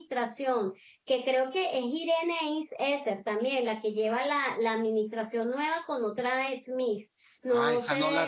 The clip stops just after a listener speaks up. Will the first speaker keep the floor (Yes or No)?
No